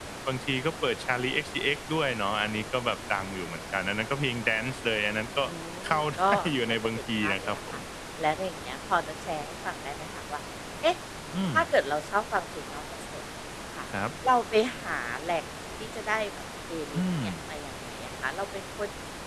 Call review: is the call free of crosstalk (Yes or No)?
No